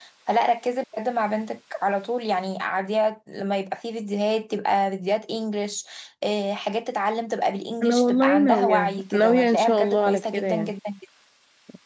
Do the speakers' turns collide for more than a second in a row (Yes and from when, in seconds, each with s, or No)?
Yes, from 7.8 s